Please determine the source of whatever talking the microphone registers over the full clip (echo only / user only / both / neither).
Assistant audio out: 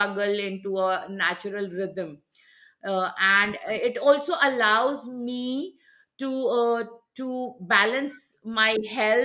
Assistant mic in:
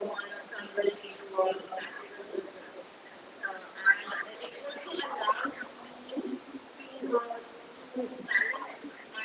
echo only